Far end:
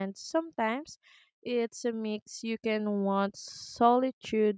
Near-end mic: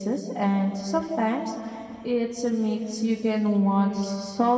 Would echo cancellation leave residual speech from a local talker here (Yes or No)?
No